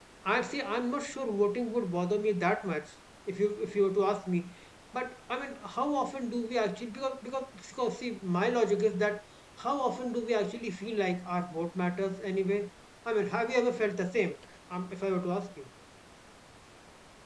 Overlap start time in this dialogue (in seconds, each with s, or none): none